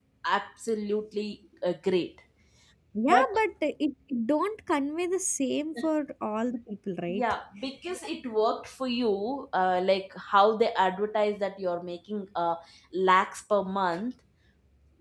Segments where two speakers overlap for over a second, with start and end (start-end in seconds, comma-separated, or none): none